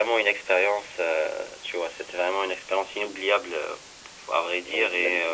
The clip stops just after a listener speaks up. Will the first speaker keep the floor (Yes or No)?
Yes